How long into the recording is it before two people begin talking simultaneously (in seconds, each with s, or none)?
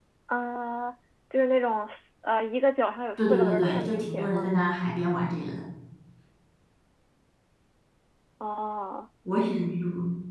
3.2 s